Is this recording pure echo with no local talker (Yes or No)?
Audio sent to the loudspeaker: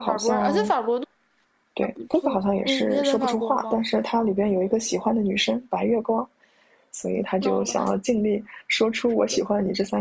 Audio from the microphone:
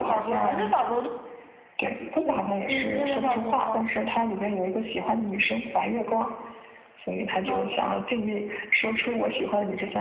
Yes